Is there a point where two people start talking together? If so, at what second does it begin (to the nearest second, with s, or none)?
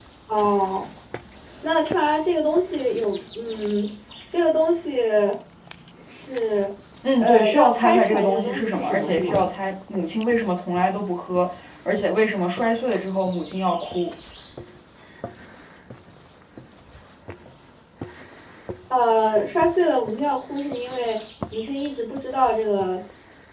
7 s